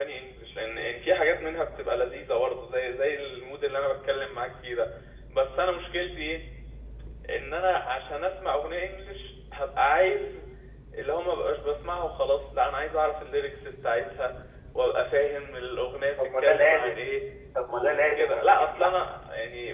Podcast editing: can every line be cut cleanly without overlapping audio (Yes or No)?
No